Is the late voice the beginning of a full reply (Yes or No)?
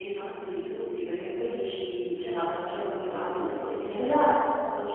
No